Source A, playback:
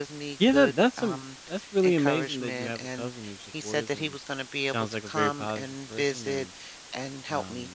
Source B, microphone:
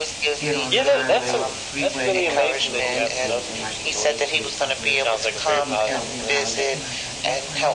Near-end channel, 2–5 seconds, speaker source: both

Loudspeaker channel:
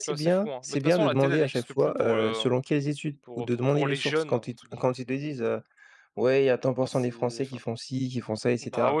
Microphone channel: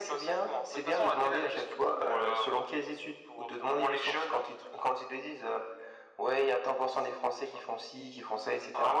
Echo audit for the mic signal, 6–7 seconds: echo only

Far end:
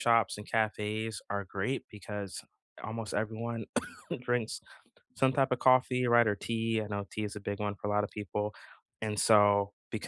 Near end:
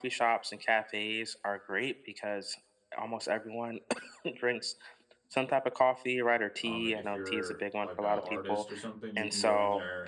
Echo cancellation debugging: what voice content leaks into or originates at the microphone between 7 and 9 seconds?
both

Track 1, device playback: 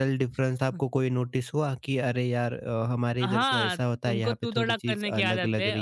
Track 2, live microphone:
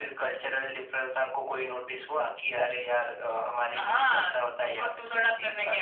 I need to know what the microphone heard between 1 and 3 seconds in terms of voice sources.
echo only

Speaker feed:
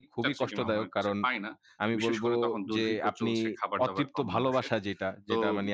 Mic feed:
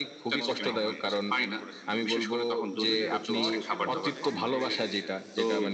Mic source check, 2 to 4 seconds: both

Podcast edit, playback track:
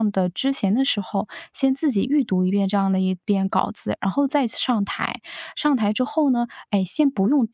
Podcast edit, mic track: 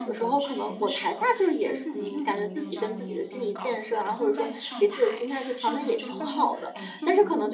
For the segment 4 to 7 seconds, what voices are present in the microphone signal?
both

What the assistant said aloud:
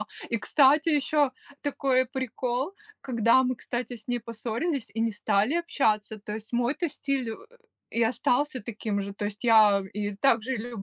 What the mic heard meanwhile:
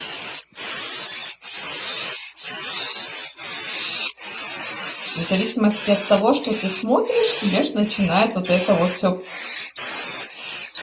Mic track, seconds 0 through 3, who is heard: neither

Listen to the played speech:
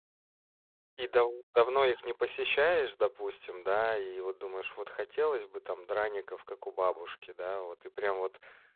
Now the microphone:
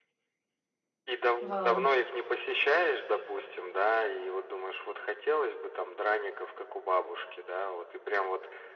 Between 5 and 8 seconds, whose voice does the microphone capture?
echo only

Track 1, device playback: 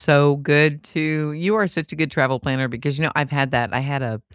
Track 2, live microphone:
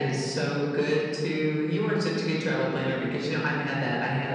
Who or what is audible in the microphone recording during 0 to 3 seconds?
echo only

